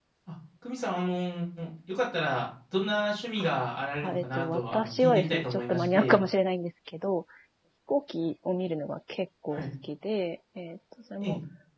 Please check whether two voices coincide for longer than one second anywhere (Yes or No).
Yes